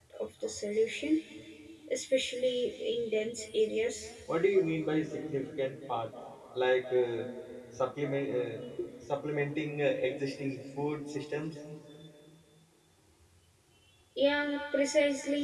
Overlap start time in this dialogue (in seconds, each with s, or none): none